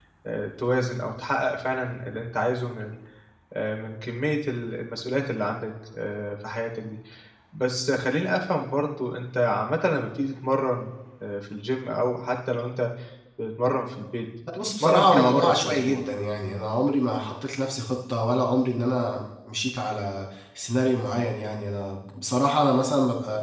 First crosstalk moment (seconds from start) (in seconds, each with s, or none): 14.5 s